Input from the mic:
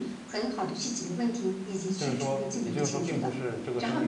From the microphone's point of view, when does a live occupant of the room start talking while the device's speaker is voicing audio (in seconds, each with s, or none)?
2.0 s